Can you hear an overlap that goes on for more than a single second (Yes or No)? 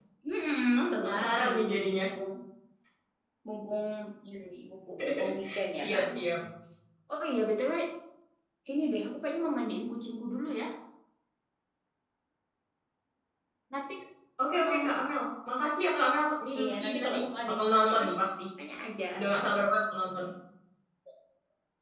Yes